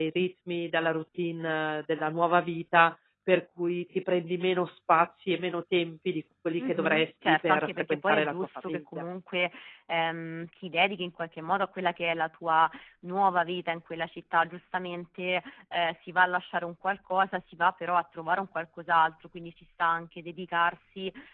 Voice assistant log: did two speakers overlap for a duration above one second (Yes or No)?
Yes